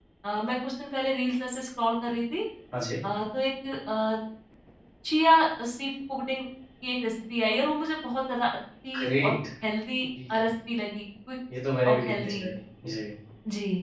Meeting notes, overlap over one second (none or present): none